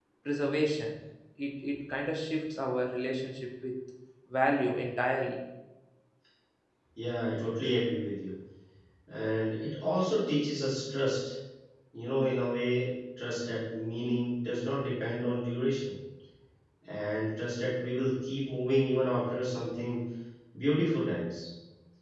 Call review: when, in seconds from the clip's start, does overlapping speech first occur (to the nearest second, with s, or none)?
none